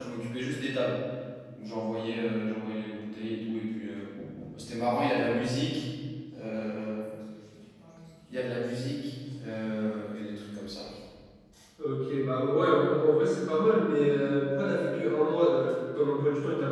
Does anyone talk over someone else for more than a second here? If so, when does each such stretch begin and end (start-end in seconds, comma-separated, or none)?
none